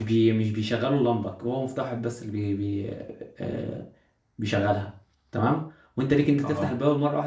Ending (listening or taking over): listening